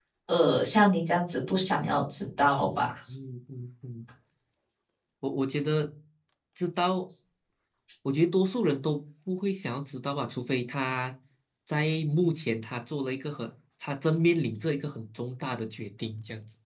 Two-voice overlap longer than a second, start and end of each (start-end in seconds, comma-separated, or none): none